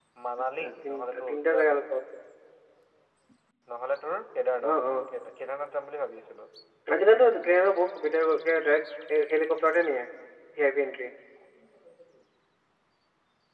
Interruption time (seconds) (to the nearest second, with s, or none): 1 s